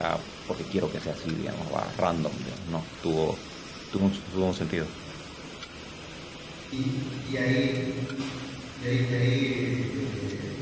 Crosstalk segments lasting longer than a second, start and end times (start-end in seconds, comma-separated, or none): none